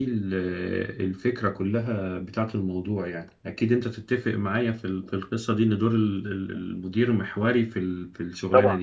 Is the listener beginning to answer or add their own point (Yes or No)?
Yes